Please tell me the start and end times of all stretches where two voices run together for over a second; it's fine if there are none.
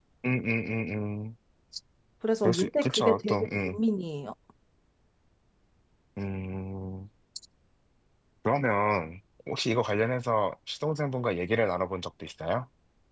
2.4-3.8

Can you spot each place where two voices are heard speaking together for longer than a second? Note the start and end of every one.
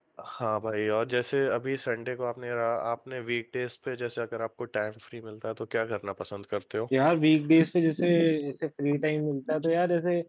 none

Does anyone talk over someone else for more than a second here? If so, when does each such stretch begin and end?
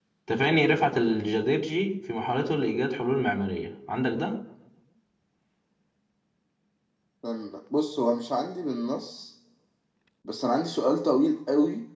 none

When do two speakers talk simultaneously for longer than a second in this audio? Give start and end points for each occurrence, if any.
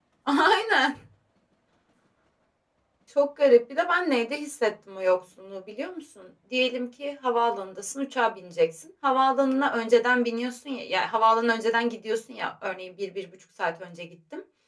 none

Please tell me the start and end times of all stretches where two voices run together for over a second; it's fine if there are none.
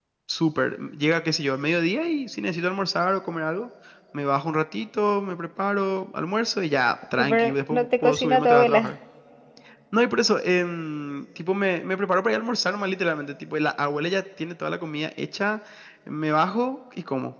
7.2-8.9

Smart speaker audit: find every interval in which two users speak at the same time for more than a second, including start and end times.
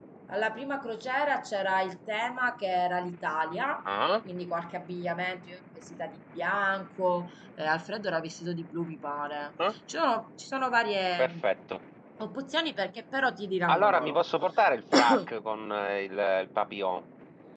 none

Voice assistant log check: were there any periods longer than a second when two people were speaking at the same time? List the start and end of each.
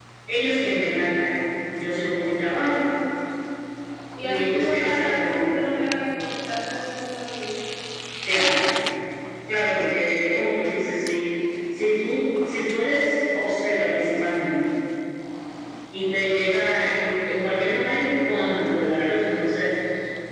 4.2-5.5

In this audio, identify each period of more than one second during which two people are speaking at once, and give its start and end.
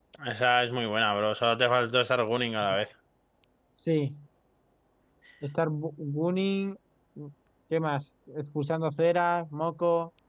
none

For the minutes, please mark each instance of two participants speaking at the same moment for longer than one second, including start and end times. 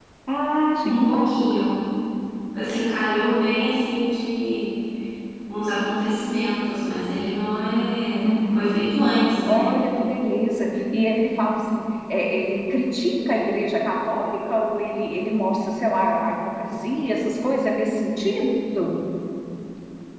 none

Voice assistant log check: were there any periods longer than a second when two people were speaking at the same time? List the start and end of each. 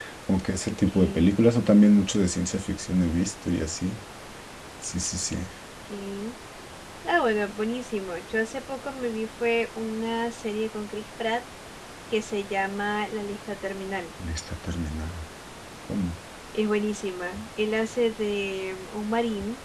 none

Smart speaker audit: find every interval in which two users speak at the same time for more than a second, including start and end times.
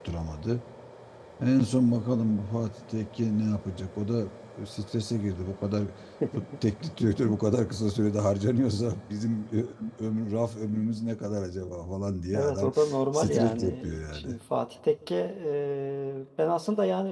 13.1-14.4

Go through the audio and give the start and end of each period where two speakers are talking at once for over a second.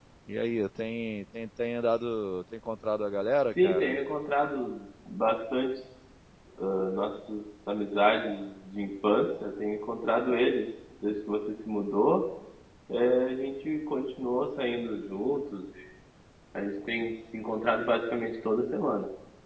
none

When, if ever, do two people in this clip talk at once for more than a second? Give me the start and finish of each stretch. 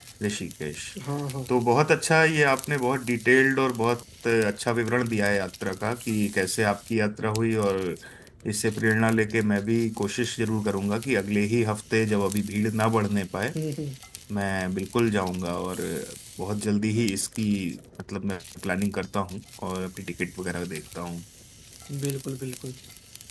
none

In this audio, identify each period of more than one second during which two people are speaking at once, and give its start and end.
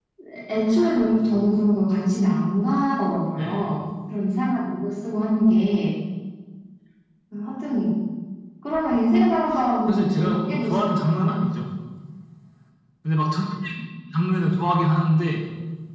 9.9-11.4

